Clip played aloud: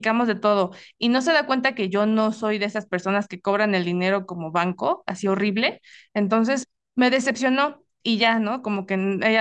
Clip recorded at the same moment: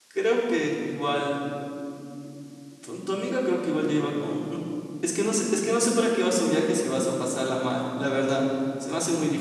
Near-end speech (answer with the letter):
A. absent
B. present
B